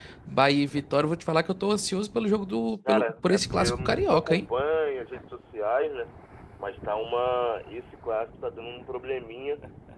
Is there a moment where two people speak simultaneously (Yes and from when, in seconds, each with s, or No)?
Yes, from 2.9 s